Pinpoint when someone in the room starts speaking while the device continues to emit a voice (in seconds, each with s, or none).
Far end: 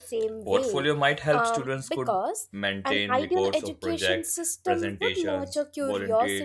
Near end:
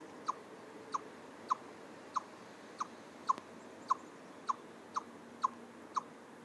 none